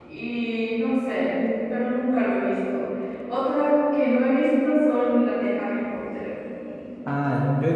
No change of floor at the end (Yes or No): No